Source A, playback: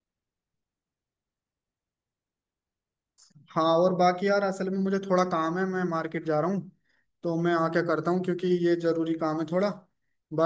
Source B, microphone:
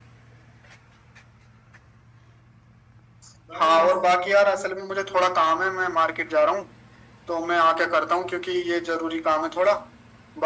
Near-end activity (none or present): present